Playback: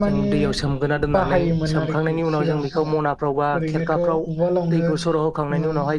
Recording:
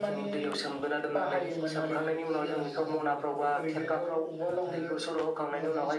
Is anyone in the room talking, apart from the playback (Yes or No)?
Yes